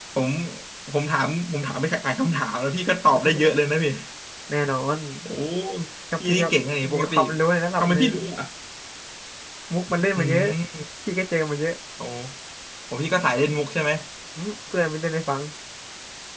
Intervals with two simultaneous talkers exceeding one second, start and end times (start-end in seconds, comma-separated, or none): none